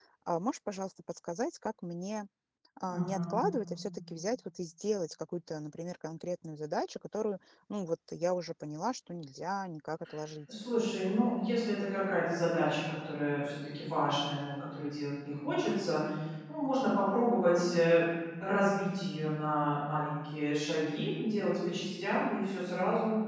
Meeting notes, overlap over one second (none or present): none